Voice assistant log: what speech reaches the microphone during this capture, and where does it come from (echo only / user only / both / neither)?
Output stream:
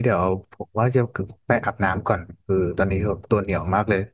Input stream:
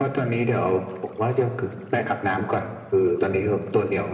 echo only